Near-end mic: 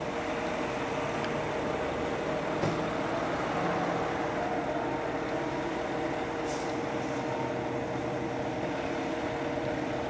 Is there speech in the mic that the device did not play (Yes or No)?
No